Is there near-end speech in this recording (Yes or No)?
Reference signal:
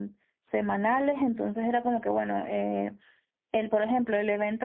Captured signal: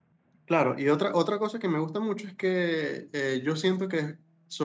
Yes